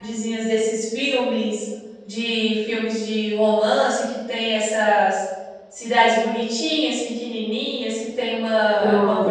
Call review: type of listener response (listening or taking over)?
listening